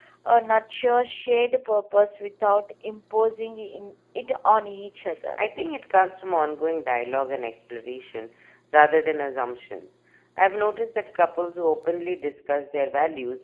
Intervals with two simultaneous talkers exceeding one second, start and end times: none

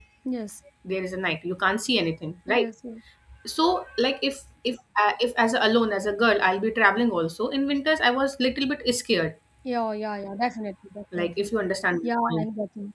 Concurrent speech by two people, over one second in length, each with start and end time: none

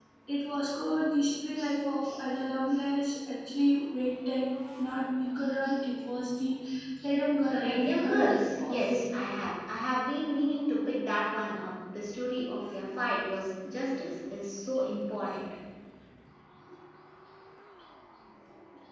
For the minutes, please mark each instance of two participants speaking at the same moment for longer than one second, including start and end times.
7.4-9.0

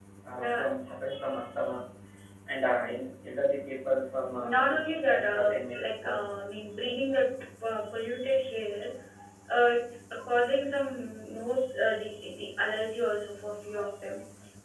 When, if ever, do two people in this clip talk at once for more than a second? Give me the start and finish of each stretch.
4.5-6.3

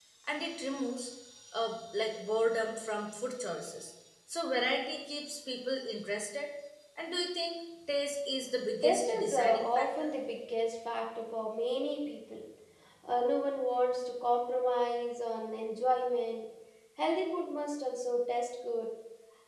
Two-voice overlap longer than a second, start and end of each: 8.8-10.1

